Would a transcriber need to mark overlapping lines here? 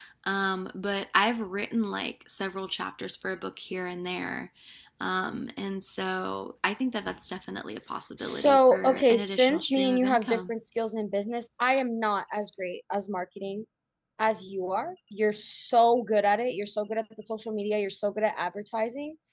Yes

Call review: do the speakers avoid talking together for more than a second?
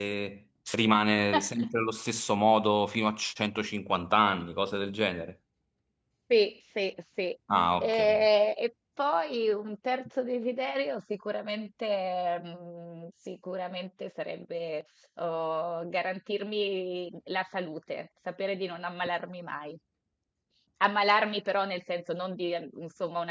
Yes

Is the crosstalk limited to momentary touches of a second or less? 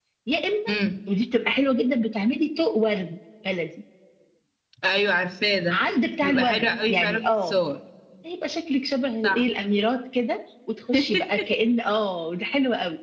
No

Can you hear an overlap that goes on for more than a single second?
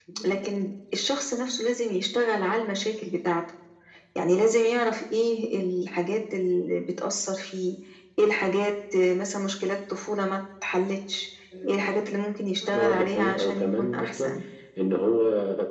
Yes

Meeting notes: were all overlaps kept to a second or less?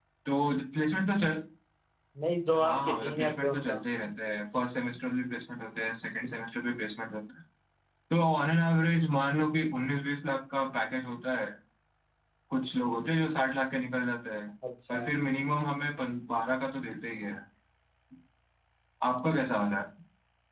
No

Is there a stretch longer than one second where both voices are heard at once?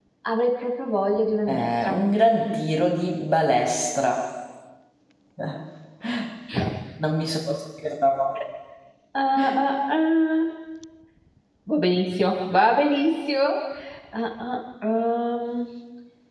No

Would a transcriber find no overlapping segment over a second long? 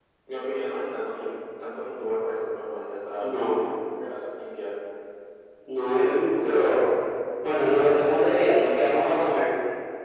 No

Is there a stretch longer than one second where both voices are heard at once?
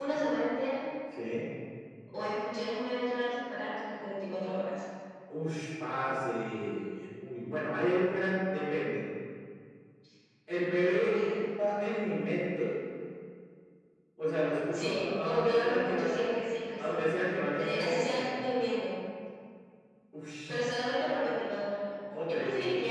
Yes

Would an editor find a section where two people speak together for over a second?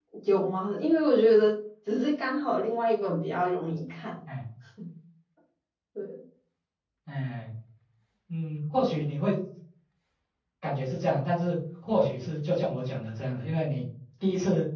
No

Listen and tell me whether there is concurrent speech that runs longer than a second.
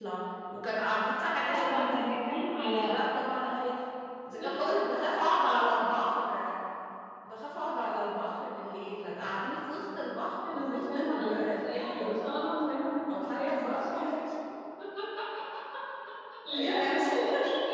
Yes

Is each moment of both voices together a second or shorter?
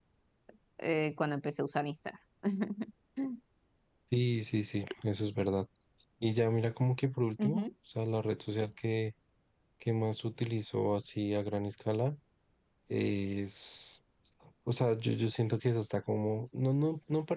Yes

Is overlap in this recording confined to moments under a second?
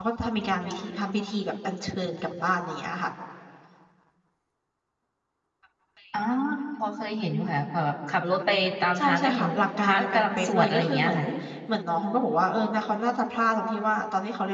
No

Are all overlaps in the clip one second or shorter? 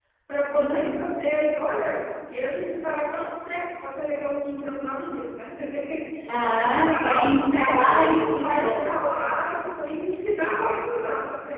No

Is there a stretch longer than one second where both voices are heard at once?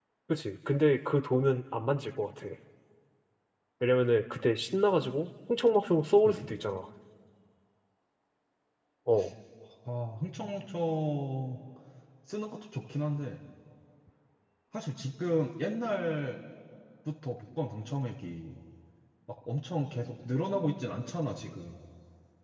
No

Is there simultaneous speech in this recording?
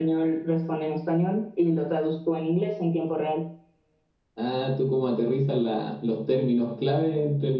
No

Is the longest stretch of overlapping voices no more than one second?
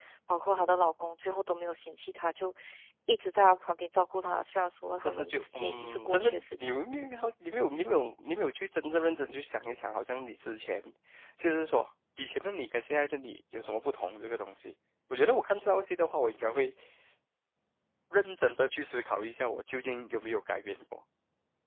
No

